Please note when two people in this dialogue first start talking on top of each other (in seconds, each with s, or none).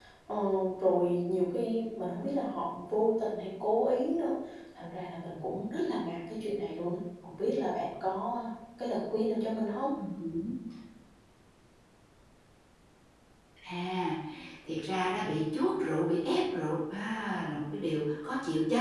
none